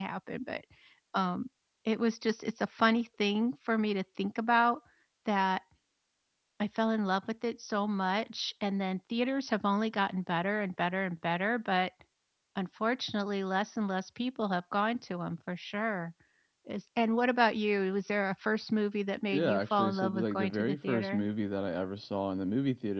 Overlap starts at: 19 s

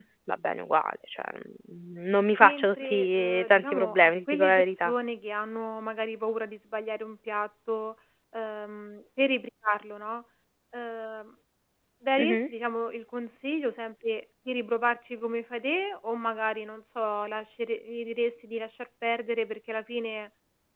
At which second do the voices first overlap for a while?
2 s

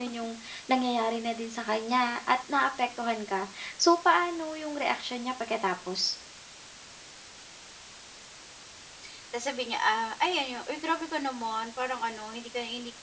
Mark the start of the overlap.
none

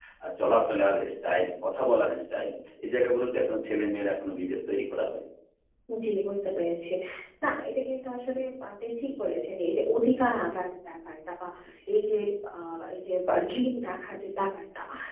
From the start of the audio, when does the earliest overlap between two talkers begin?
none

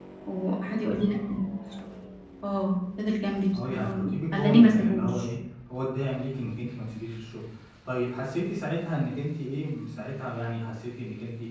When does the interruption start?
4 s

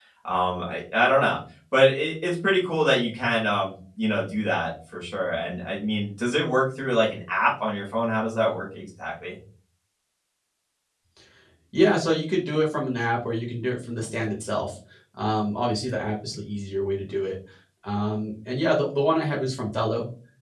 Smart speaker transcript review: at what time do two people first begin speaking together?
none

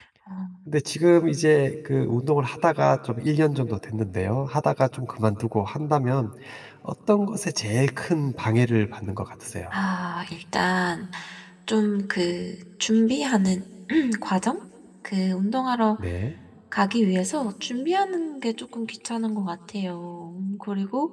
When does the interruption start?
none

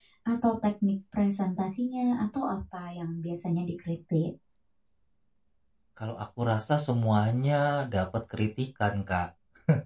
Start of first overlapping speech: none

